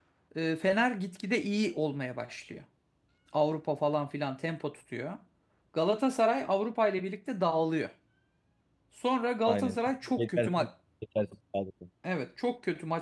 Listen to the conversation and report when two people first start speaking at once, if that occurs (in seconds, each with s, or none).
9.5 s